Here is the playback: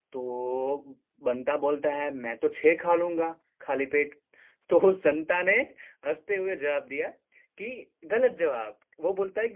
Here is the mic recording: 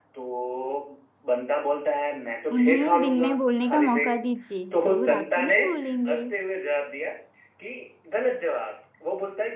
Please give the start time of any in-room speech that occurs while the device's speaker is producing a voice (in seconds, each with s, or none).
2.5 s